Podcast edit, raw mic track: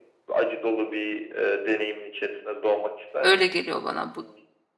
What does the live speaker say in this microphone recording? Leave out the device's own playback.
Öyle geliyor bana bu.

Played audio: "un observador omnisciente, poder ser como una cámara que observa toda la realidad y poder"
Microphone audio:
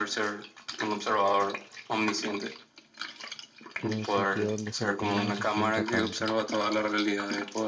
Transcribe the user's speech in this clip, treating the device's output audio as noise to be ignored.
Quiero un sitio donde sentir no se sienta tanto,

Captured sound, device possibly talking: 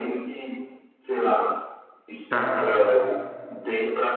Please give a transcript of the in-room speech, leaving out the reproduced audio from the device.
cara,

